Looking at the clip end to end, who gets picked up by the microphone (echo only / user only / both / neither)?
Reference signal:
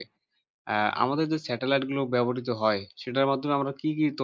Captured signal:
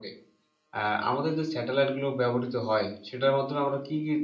echo only